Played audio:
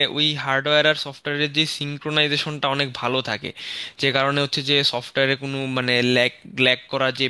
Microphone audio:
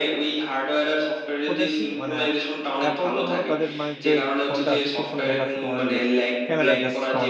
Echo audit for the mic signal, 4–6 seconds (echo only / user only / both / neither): both